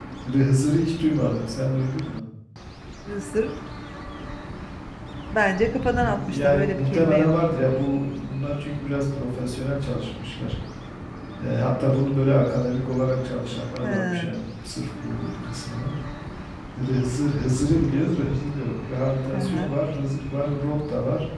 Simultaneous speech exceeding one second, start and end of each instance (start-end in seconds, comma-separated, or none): 5.9-7.3